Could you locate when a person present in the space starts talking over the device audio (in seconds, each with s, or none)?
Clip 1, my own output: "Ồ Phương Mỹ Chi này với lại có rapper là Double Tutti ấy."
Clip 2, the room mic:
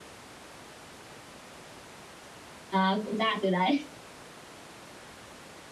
2.7 s